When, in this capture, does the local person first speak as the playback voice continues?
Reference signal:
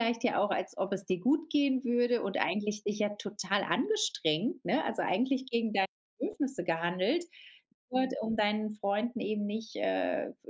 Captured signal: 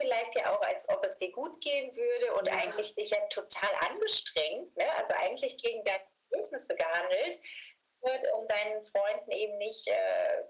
2.4 s

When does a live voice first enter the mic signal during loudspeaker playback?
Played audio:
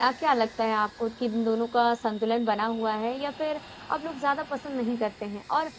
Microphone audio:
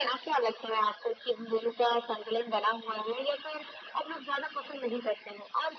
none

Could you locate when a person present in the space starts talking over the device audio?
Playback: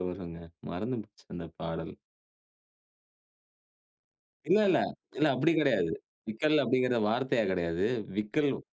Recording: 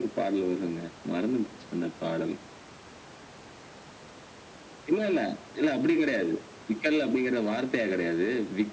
none

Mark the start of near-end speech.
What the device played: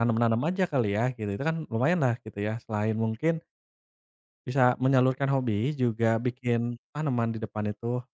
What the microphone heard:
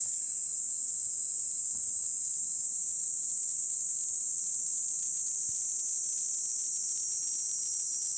none

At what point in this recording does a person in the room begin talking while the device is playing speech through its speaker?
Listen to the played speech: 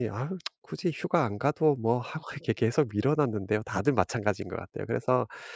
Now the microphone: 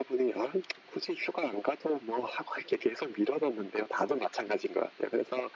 none

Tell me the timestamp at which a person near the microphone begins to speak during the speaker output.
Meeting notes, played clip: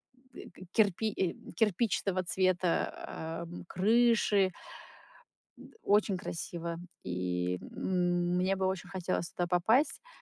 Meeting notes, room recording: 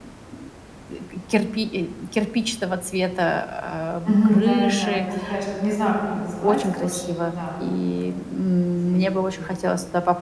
4.0 s

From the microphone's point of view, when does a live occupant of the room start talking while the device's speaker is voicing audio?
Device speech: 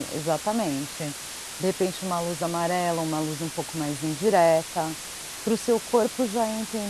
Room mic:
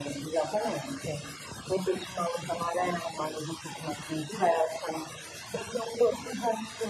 none

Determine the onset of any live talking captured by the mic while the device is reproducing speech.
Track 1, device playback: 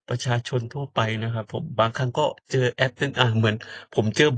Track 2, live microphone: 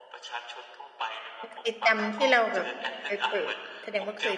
1.4 s

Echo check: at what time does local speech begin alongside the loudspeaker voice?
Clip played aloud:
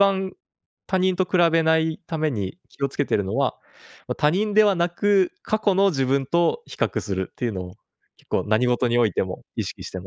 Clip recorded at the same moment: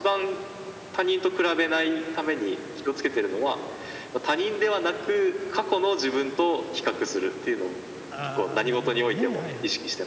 8.1 s

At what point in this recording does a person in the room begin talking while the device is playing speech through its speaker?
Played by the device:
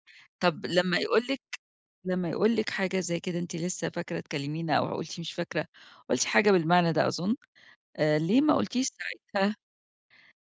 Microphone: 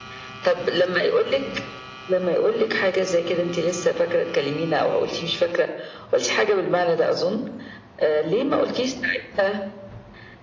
none

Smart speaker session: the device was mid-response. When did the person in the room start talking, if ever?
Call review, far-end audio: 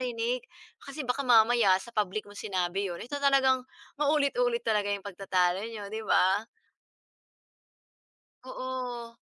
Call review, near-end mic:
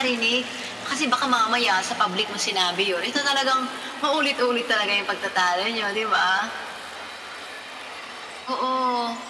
none

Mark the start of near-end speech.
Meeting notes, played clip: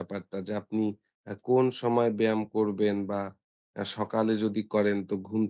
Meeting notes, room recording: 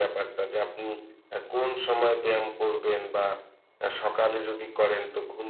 none

